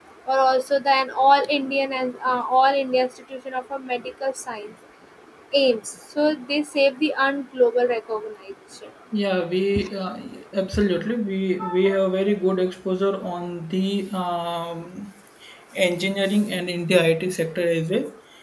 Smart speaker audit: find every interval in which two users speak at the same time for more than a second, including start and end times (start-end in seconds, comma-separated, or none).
none